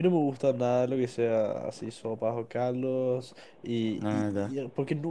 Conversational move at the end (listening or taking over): listening